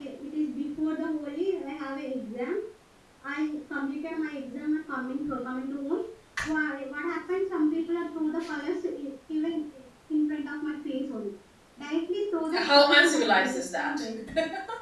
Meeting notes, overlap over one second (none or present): present